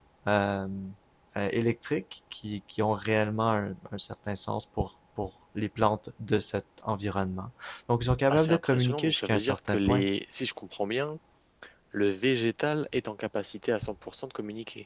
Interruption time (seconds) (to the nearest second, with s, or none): 8 s